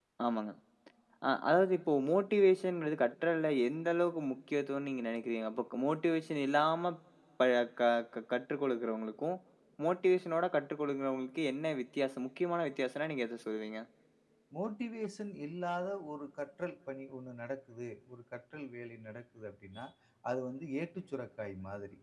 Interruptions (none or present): none